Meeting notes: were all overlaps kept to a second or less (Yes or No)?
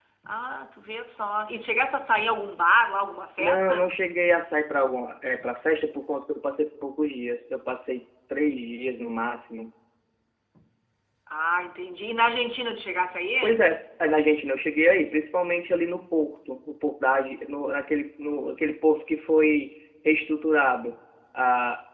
Yes